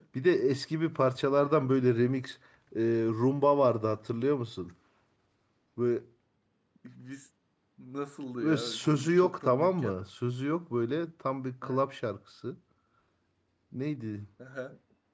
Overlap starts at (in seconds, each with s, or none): 8.4 s